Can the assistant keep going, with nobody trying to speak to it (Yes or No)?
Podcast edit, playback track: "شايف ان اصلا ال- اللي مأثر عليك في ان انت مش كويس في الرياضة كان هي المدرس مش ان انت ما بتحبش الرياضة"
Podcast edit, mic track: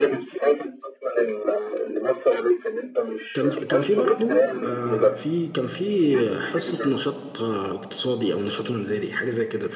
No